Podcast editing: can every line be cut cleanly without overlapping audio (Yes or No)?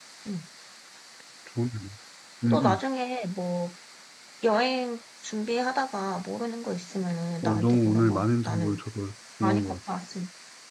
No